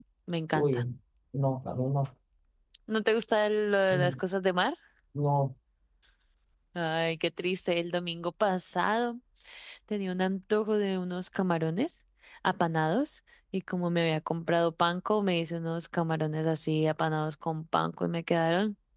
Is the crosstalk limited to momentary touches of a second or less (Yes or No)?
Yes